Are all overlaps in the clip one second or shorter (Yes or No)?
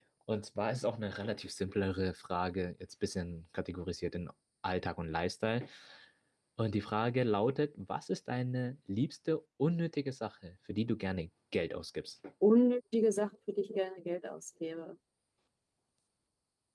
Yes